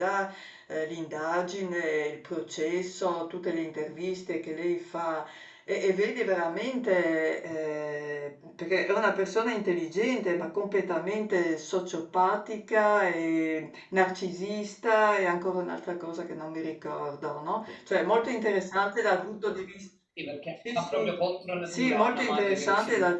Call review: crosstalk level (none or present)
present